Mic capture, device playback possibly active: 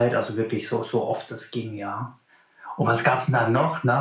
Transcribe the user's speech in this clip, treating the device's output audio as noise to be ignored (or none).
none